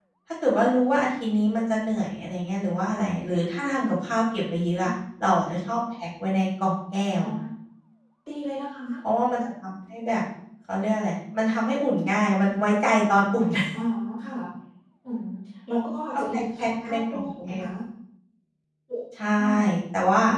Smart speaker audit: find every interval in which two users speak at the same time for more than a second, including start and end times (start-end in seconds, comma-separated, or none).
16.1-17.7